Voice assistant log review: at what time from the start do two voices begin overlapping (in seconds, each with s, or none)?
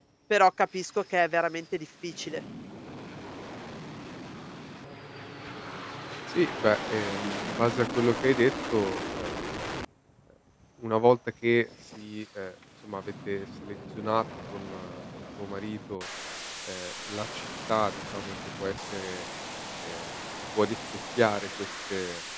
none